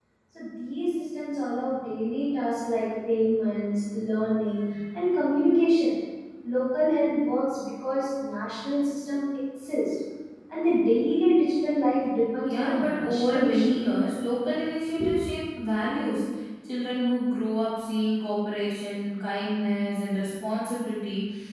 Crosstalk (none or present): present